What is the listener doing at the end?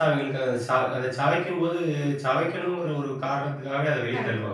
taking over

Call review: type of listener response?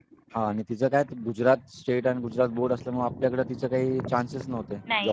taking over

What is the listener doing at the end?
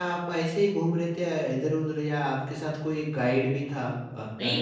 taking over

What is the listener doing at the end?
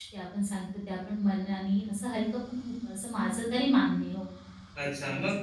taking over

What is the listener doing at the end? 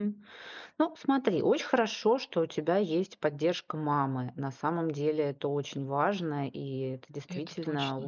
listening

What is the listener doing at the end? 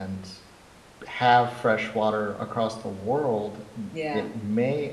listening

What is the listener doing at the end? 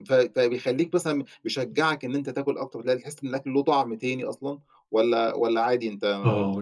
taking over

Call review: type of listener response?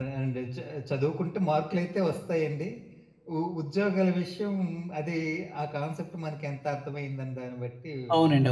taking over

